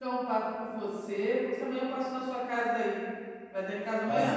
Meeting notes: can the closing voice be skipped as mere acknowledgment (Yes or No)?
No